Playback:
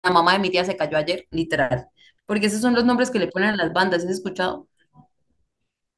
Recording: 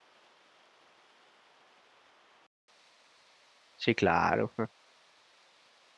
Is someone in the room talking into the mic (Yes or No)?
Yes